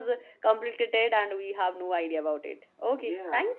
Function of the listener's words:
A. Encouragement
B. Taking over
B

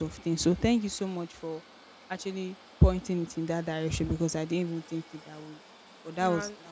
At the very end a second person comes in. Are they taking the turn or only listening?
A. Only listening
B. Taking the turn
A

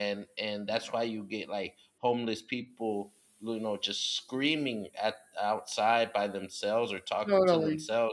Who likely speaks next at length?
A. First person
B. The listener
A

